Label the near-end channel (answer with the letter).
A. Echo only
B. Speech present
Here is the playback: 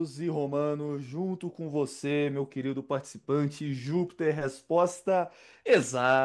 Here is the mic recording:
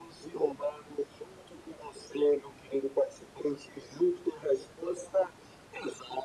A